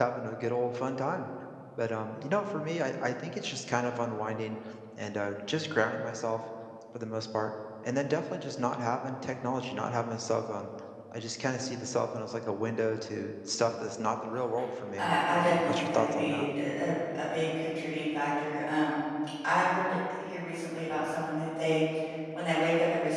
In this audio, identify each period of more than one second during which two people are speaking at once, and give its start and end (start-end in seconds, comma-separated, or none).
15.0-16.4